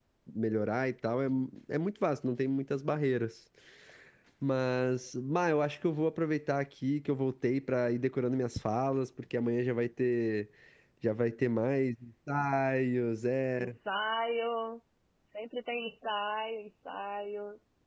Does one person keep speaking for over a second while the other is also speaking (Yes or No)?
No